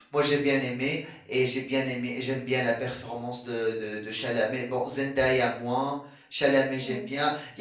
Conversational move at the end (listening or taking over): listening